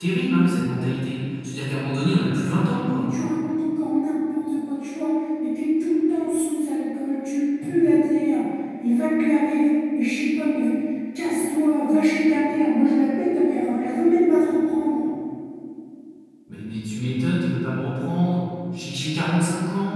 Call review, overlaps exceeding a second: none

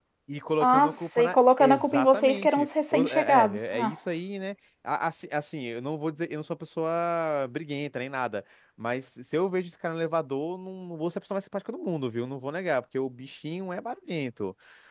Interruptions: present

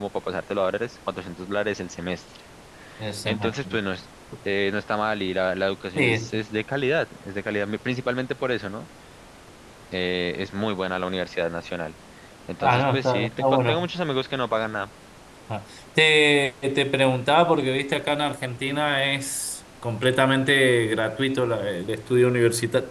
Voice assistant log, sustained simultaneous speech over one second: present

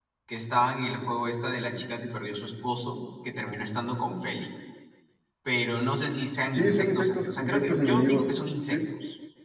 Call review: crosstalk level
present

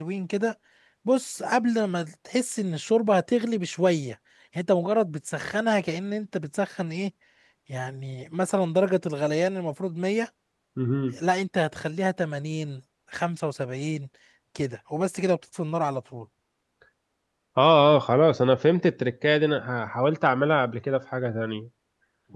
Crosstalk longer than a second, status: none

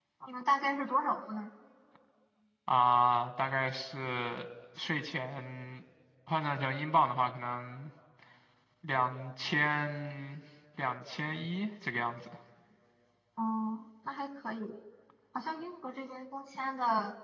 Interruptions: none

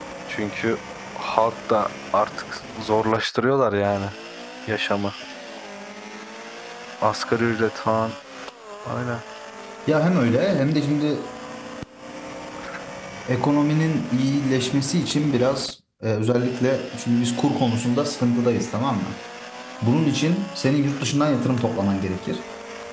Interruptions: none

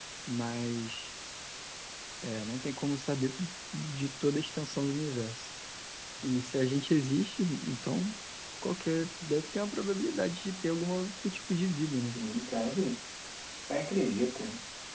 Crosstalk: none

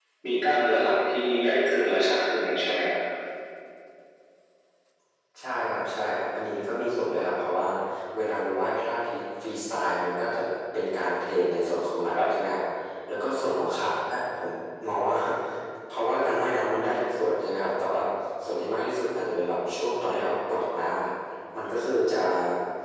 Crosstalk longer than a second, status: none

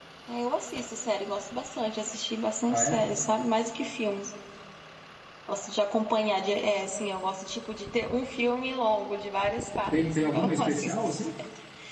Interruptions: present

